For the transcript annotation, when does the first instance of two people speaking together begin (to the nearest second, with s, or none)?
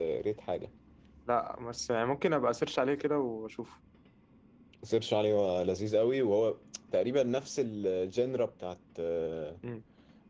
none